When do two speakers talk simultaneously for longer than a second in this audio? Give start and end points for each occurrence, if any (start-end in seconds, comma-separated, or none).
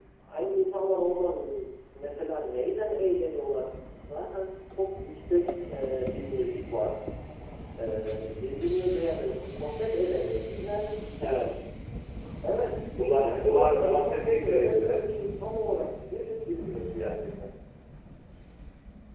13.2-15.1